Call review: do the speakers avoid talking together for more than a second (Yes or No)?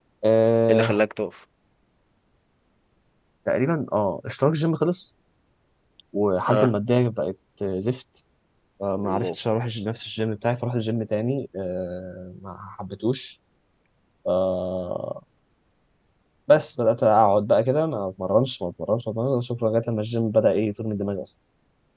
Yes